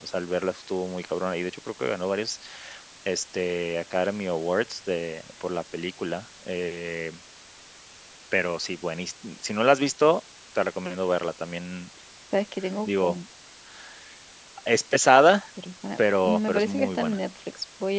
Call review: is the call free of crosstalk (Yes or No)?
No